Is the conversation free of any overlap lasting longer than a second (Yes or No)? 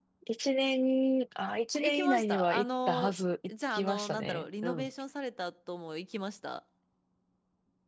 No